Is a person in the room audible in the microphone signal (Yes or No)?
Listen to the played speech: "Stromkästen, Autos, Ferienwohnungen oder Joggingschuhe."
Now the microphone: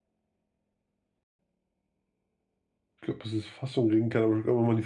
Yes